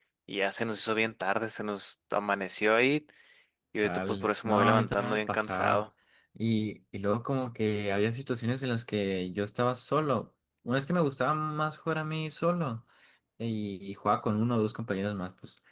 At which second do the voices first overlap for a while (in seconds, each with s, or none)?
3.8 s